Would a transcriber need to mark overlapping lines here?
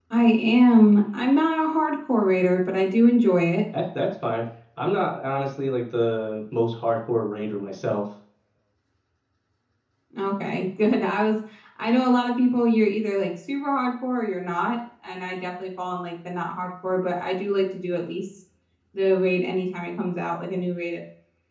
No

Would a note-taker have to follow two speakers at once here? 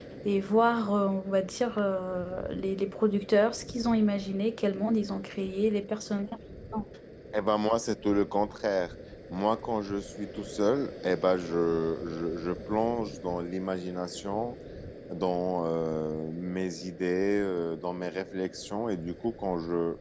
No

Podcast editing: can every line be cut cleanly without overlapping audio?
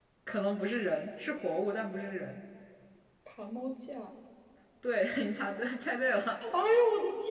Yes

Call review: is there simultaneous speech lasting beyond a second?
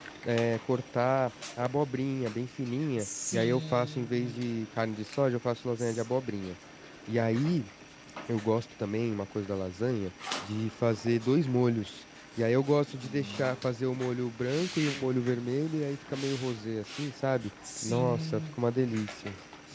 Yes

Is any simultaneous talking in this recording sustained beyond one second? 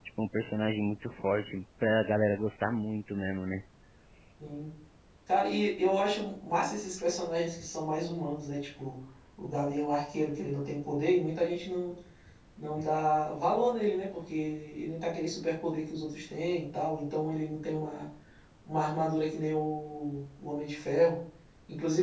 No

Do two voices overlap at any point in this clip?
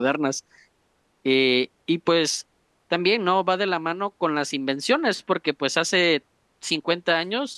No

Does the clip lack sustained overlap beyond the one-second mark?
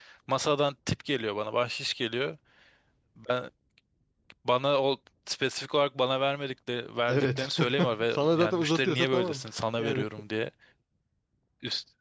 No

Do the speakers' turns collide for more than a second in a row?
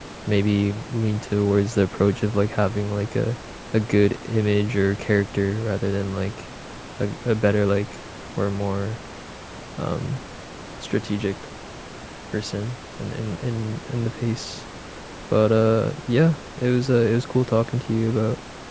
No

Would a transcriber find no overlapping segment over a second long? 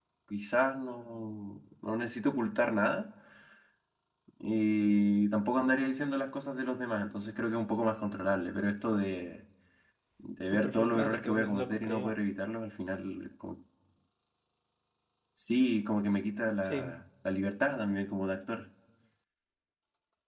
No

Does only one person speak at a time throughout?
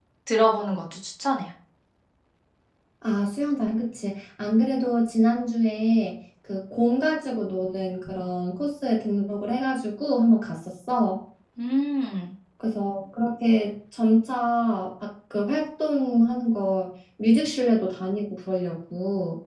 Yes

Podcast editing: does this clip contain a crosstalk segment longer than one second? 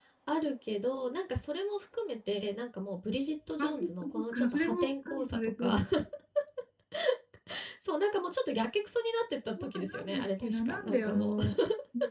Yes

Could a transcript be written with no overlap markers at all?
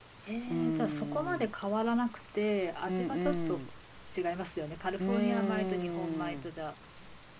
No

